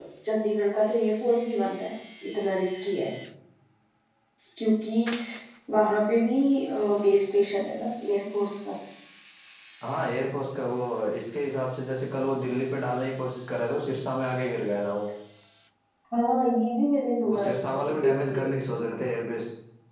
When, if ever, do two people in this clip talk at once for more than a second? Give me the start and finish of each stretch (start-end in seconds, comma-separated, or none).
17.3-18.5